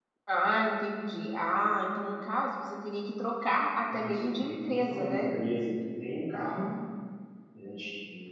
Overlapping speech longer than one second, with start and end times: 3.9-5.3

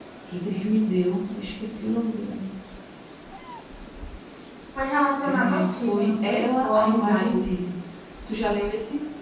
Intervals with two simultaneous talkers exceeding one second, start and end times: 5.2-7.4

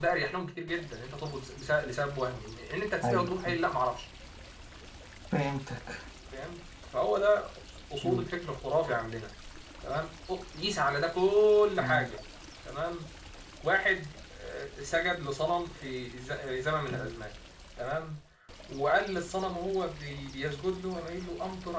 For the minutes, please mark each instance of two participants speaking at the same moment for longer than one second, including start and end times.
none

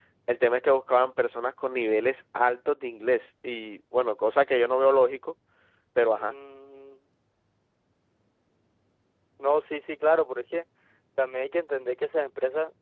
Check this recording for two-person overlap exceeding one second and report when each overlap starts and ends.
none

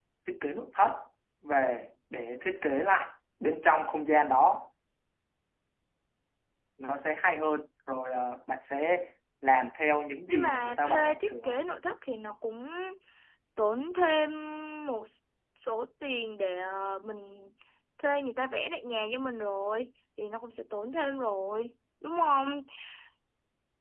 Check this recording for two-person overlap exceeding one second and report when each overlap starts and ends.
10.3-11.6

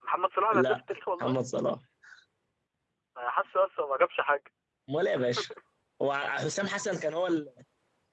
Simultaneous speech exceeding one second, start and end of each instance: none

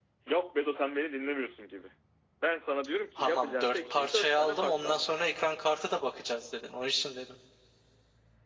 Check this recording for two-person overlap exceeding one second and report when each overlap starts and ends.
3.2-5.1

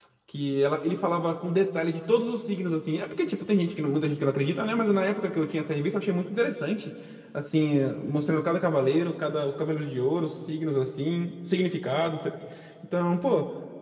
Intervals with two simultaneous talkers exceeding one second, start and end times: none

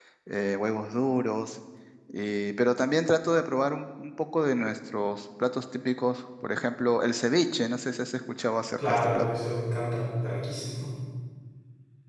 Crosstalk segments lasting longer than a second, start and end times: none

